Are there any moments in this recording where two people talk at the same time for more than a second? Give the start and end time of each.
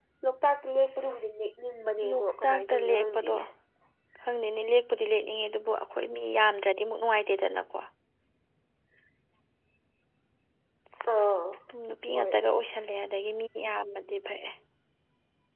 2.1-3.4

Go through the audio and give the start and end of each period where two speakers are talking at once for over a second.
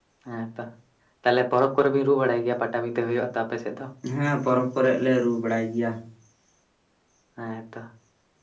none

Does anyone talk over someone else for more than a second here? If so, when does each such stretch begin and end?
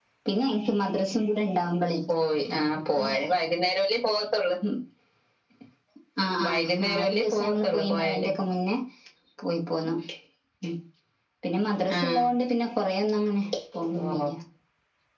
6.5-8.3

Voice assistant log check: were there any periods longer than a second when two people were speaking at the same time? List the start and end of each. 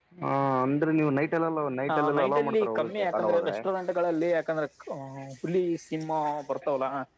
1.9-3.6

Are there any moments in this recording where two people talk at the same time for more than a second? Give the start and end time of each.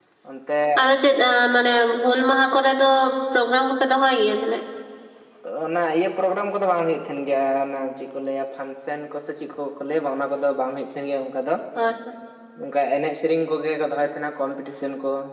none

